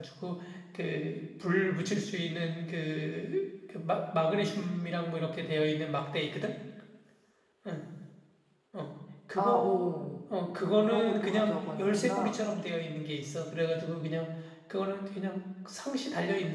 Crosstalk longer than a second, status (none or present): present